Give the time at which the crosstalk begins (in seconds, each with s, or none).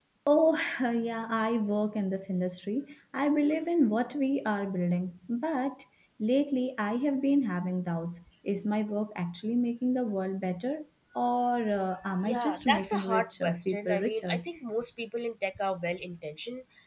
12.2 s